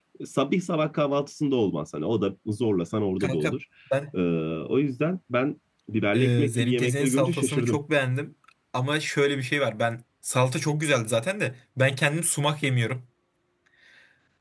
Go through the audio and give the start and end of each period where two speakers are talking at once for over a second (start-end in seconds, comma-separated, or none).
6.1-7.8